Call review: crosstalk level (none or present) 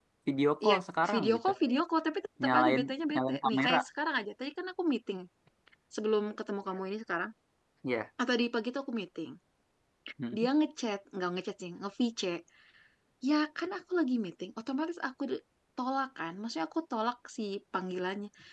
present